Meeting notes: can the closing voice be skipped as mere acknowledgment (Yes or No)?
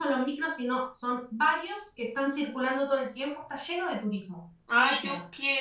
No